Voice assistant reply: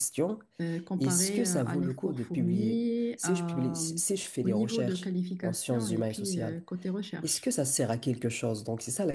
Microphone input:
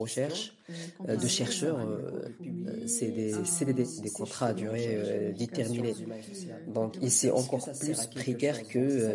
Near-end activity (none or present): present